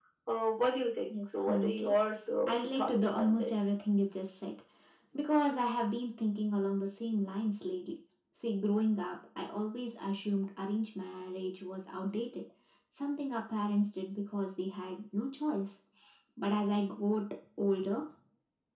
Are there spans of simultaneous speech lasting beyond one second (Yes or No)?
Yes